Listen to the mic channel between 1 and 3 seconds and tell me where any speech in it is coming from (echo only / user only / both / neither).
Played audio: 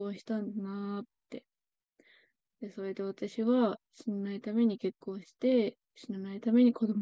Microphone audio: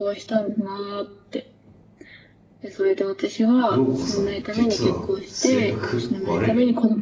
echo only